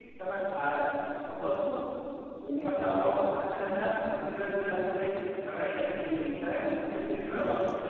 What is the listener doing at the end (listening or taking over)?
listening